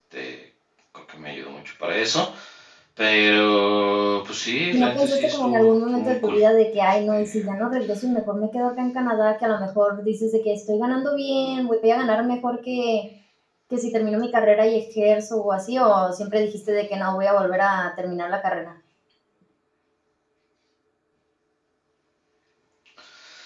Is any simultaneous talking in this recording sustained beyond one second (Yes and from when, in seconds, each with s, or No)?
Yes, from 4.7 s